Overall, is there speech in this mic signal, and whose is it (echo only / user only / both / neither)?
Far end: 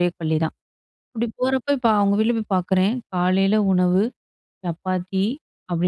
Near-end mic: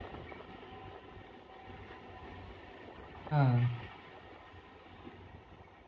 user only